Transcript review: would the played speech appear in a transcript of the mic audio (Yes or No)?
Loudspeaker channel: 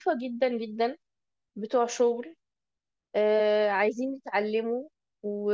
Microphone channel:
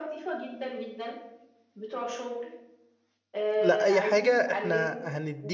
Yes